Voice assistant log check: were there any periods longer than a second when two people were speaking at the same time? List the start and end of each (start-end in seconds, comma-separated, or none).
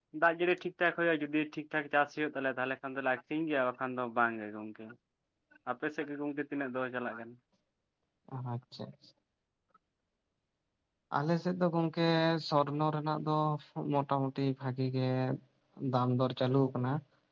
none